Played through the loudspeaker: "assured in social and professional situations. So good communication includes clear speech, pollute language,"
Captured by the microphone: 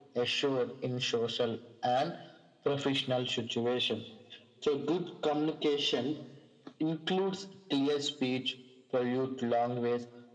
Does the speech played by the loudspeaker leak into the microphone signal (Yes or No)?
Yes